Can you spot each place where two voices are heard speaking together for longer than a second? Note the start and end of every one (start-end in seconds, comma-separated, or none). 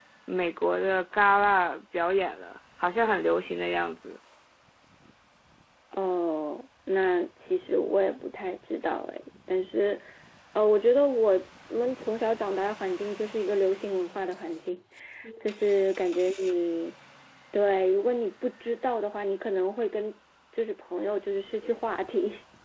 none